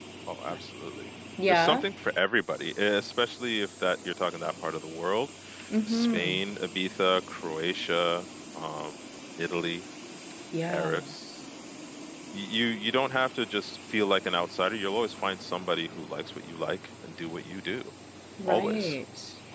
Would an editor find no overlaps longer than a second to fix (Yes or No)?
Yes